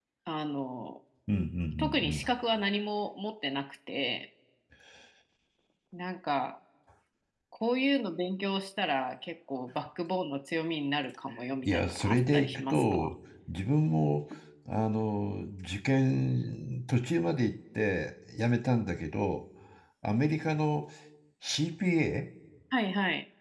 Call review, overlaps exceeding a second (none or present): present